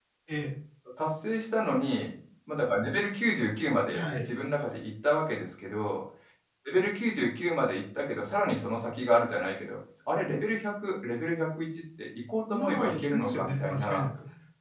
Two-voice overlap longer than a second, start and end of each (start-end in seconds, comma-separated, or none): 12.5-14.0